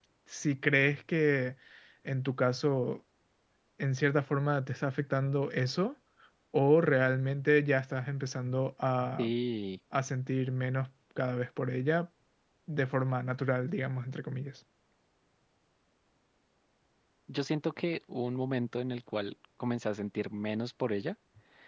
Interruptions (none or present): none